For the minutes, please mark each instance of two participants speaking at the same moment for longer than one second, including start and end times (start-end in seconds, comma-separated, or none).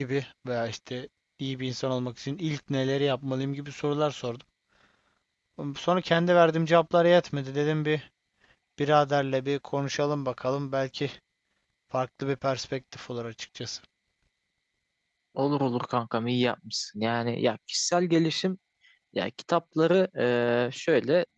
none